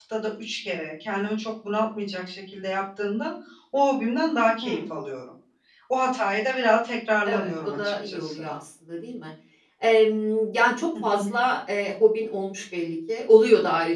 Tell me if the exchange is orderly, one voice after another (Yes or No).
No